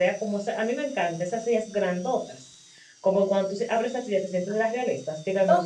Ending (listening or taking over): taking over